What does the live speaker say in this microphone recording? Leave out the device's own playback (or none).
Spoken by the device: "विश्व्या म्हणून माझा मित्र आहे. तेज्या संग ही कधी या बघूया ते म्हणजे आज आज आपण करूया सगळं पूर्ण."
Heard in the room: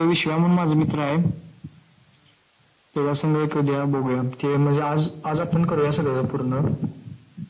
none